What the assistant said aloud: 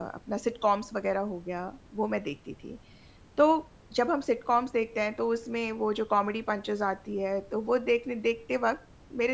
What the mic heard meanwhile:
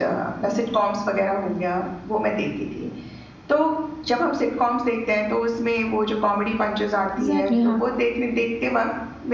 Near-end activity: present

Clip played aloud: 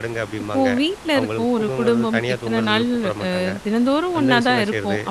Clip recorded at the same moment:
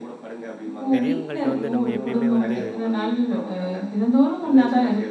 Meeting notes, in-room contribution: present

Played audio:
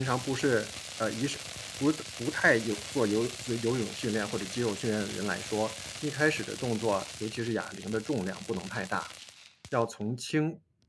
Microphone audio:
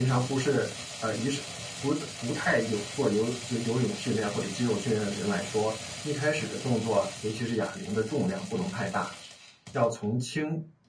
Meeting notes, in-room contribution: none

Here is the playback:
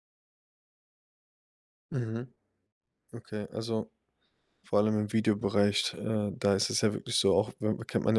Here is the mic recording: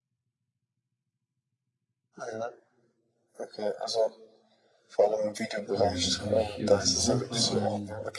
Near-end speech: present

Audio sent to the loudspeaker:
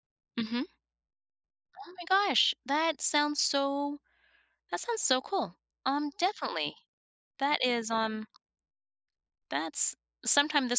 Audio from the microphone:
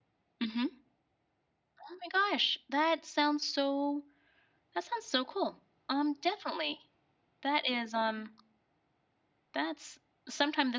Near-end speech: none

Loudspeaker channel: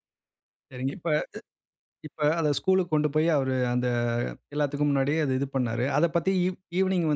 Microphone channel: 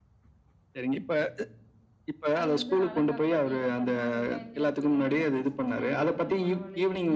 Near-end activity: present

